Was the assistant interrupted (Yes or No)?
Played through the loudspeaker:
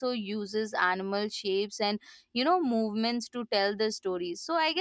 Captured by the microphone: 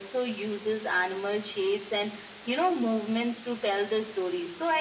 No